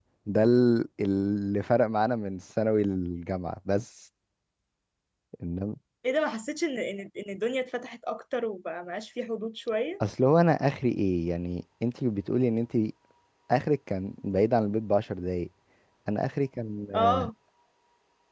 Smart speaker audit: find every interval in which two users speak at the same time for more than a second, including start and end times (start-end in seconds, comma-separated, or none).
none